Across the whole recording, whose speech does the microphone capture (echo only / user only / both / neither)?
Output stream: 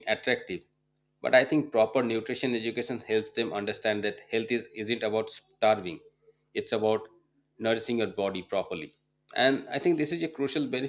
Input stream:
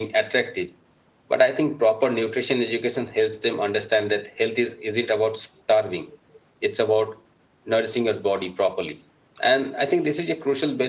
echo only